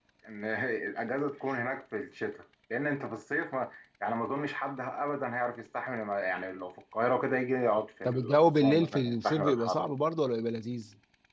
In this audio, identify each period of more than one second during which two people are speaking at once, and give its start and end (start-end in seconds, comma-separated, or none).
8.0-9.8